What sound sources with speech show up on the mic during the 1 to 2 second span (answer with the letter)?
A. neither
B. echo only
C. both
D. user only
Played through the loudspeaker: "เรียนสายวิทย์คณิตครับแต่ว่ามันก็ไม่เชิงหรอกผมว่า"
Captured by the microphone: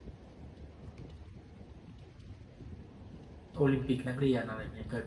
A